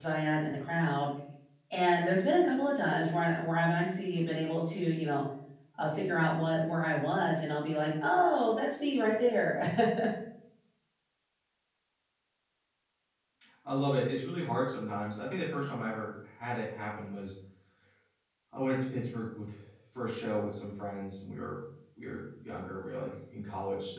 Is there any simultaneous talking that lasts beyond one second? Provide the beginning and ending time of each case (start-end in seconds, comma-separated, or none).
none